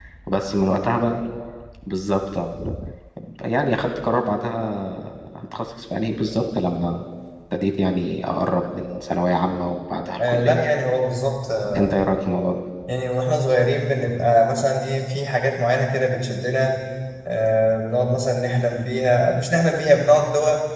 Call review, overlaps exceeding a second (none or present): none